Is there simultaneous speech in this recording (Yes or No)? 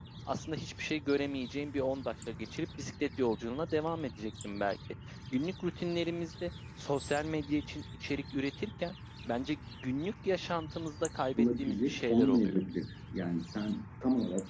Yes